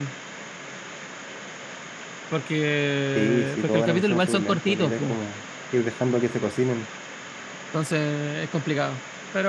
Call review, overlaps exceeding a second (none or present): present